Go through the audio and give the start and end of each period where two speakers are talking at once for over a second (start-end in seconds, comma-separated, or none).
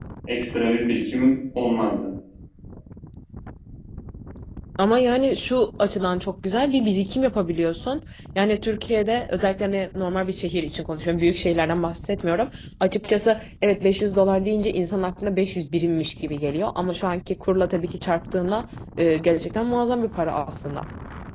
none